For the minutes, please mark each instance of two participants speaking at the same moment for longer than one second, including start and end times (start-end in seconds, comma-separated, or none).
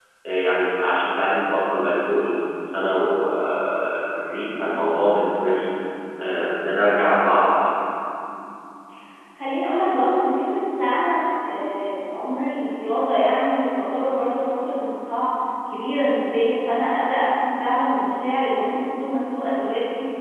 none